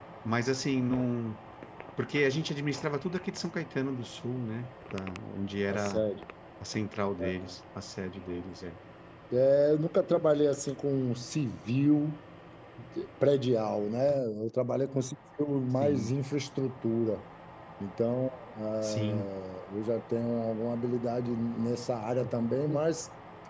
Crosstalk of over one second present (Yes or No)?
No